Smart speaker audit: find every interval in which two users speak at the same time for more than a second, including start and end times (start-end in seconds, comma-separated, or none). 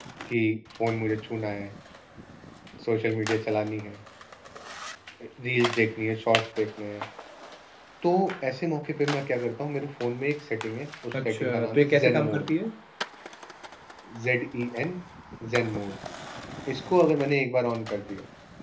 11.1-12.4